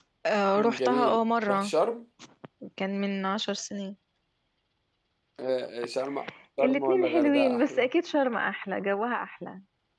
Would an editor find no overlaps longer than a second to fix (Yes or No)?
No